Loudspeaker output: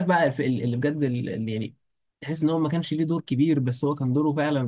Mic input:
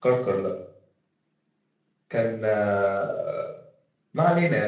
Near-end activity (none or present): present